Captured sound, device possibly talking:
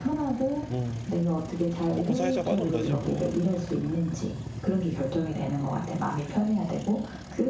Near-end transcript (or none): 뭐 먹고 살자고 하는 거지 뭐.